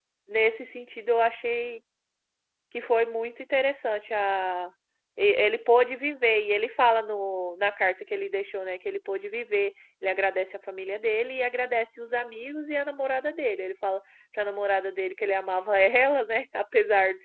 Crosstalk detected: No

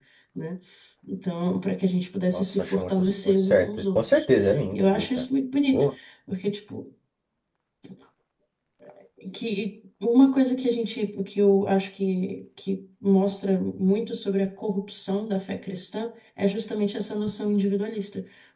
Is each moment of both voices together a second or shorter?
No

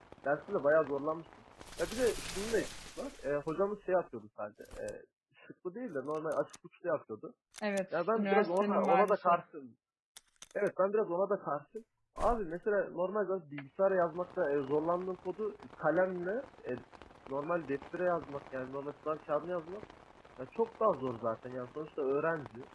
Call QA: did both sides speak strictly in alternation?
No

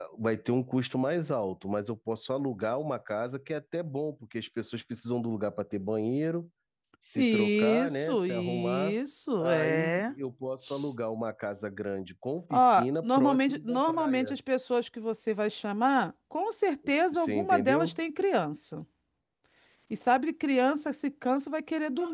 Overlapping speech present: Yes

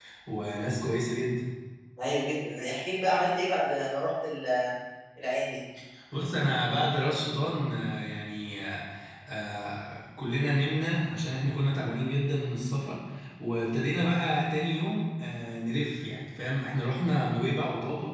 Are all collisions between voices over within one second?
Yes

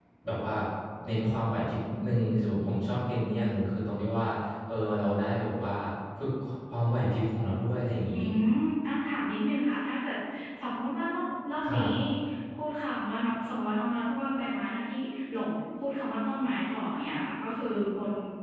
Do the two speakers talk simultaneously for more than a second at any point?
No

